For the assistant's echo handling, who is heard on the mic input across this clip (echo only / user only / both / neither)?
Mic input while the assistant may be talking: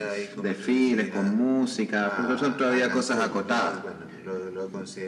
both